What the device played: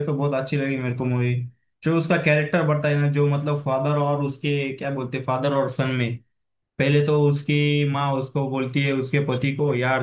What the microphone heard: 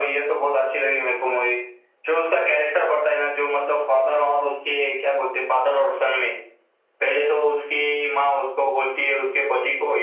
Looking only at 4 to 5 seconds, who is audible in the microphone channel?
echo only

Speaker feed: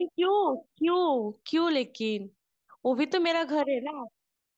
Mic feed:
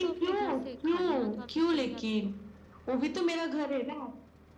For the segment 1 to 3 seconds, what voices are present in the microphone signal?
both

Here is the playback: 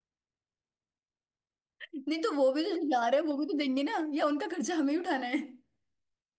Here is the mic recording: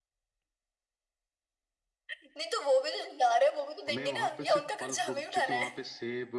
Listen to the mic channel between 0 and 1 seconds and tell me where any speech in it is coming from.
neither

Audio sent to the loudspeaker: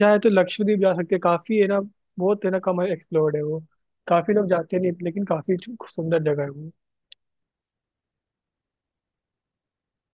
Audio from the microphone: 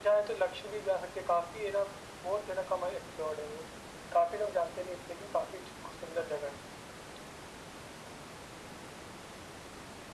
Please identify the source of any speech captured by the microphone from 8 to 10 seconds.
neither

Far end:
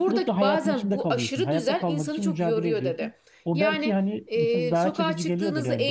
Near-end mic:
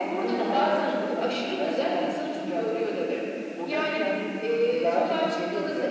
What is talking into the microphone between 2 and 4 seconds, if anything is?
echo only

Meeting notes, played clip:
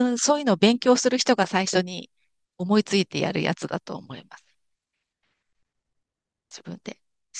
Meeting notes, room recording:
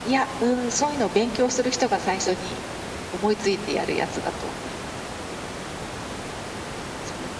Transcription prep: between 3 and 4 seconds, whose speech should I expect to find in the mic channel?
echo only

